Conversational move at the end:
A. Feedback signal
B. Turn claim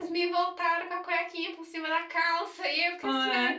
A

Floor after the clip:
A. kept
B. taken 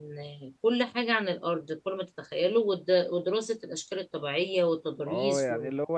B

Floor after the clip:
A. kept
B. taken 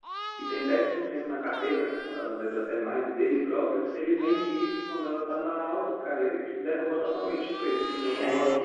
B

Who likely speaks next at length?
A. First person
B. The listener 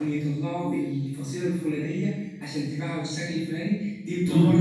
A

